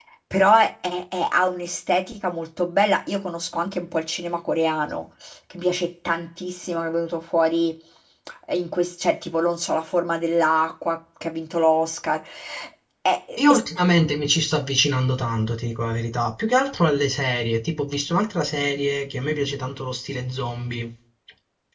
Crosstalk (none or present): none